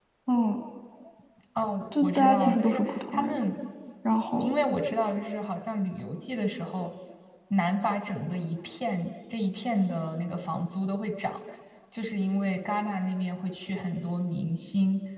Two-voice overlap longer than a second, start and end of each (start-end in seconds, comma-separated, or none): 1.9-3.4